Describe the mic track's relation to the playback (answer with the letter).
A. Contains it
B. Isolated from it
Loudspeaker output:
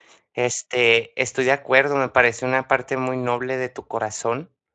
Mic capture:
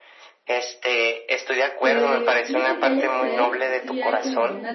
A